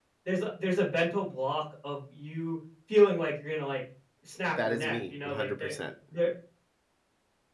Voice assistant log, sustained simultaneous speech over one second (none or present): present